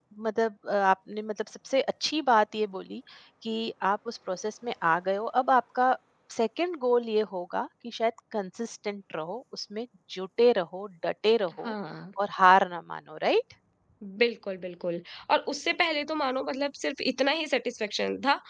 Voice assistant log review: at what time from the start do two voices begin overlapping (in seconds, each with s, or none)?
none